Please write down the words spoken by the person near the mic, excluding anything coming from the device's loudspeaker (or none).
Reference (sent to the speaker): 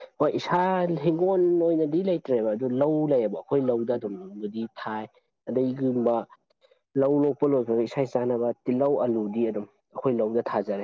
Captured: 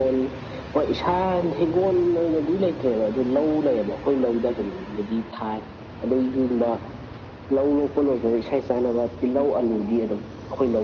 none